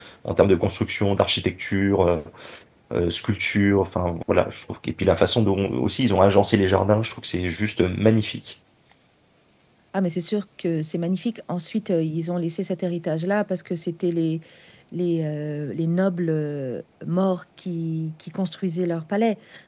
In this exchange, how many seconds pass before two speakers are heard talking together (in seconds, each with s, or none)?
none